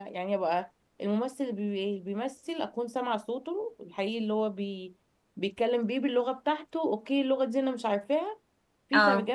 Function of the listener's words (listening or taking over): listening